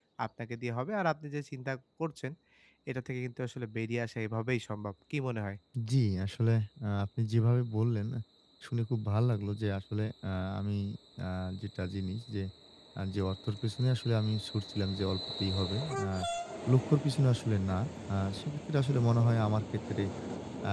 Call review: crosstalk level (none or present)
none